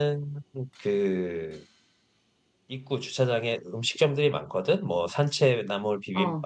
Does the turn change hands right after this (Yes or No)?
No